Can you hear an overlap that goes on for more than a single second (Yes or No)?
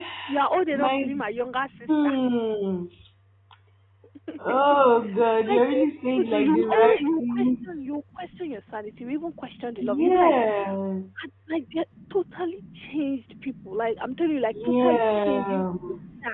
Yes